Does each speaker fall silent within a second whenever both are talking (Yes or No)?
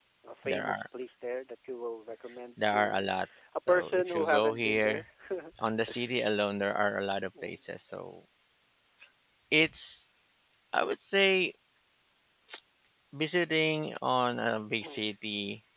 No